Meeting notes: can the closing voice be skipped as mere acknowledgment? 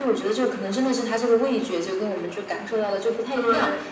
Yes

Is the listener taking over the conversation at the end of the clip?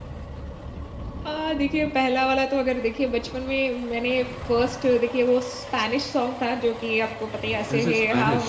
No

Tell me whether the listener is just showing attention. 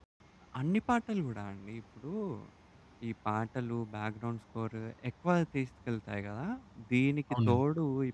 Yes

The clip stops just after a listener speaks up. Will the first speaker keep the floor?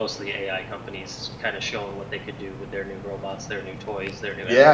No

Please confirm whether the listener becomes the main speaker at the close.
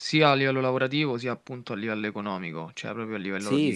Yes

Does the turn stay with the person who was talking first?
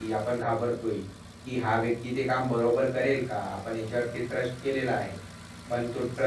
Yes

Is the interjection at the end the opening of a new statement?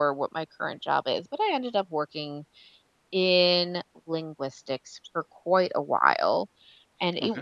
No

